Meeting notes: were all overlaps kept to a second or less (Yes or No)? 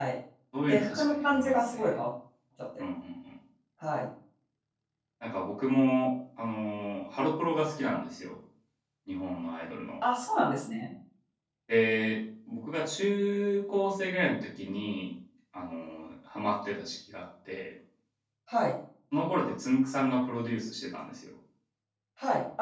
No